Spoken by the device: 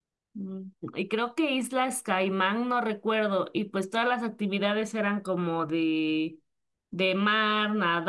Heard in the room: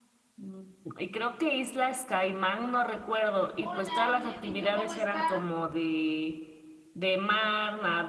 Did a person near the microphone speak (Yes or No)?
Yes